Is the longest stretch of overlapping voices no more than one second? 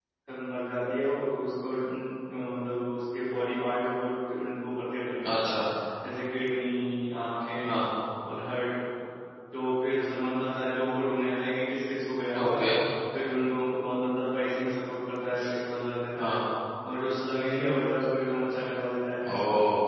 Yes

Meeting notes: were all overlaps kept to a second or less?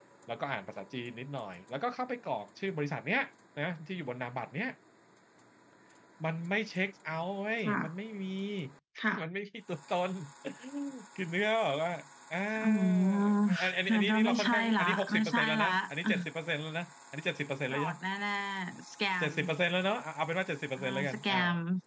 No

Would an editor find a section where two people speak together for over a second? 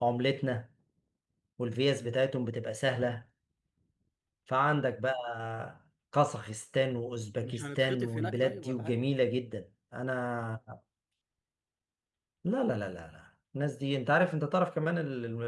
Yes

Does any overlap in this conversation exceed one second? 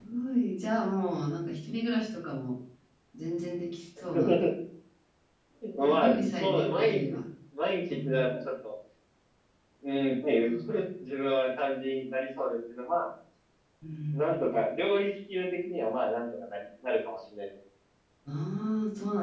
Yes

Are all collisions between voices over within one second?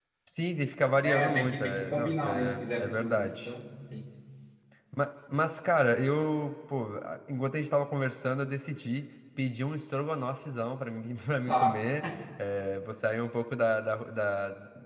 No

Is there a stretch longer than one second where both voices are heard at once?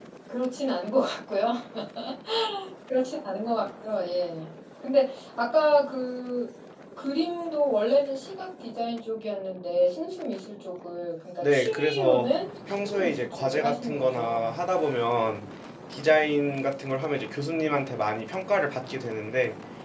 Yes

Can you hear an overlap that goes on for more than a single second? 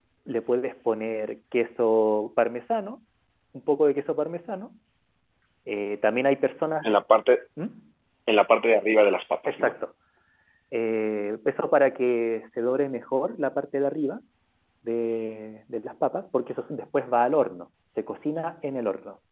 No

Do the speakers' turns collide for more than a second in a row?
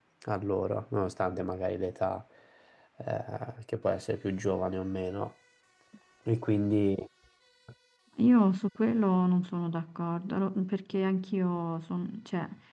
No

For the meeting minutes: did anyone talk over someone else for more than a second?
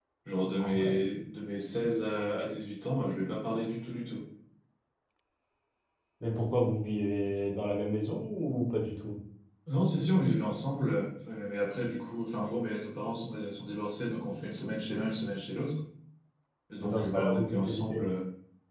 Yes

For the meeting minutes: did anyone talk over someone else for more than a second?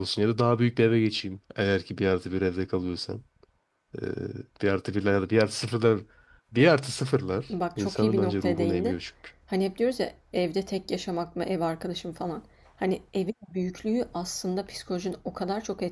Yes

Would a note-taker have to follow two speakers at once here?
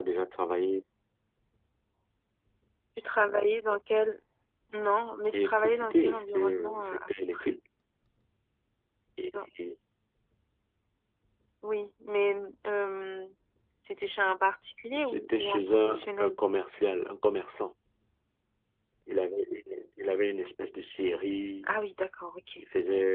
Yes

